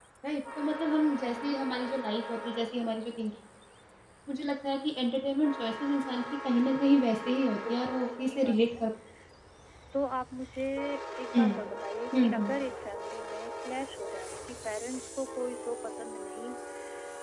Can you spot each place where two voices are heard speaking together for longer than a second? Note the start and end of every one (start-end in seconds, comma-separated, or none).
7.0-8.8